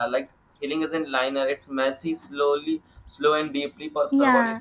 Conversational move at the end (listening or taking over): taking over